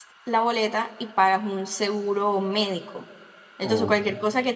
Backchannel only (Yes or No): Yes